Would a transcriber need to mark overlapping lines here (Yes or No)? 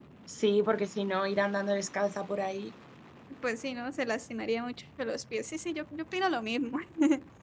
No